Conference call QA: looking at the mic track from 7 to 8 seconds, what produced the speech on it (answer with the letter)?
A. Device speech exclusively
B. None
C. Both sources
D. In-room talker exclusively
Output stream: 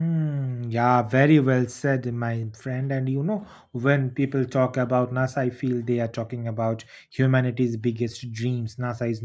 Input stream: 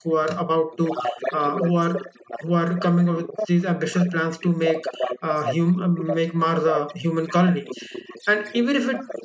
C